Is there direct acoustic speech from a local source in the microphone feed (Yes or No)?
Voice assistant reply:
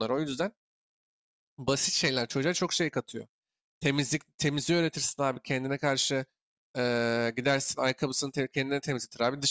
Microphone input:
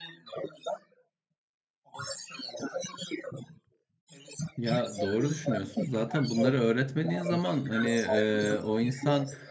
Yes